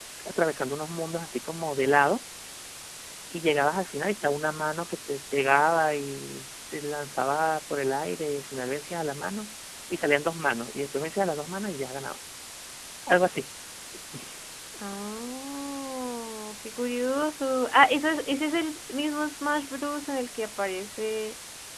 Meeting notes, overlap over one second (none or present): none